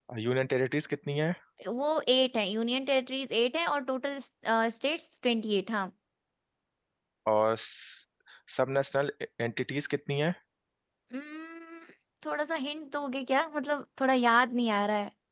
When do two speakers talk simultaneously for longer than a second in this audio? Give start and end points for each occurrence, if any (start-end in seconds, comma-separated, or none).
none